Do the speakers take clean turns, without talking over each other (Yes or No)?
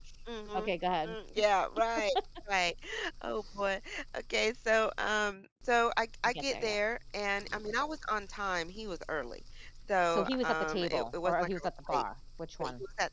No